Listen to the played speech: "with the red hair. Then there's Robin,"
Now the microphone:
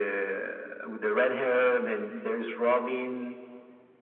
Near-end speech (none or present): none